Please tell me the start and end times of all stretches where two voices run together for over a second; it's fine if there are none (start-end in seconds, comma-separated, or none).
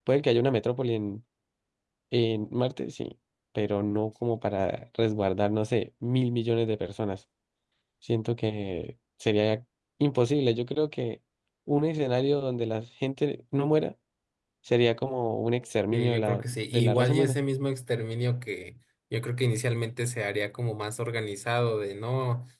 15.9-17.4